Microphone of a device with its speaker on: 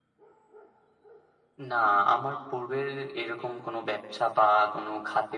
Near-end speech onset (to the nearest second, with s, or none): none